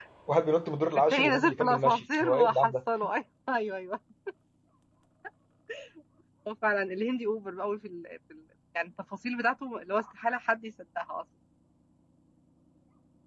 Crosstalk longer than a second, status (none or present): present